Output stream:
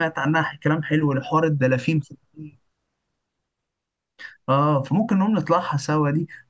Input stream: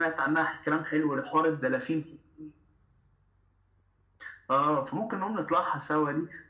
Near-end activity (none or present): none